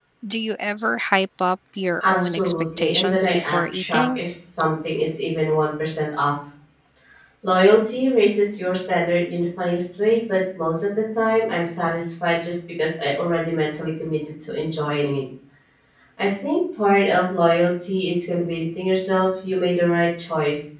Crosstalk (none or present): present